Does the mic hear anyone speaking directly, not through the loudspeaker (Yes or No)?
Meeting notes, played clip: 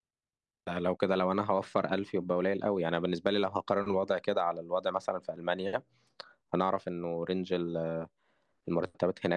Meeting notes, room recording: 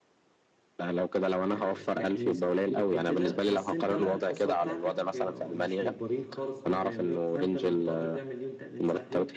Yes